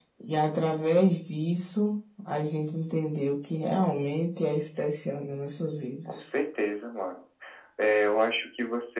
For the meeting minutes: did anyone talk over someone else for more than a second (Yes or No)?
No